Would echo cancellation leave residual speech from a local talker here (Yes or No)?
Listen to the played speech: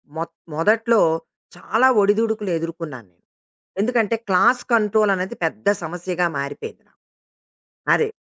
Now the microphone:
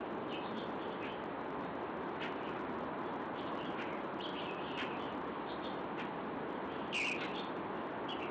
No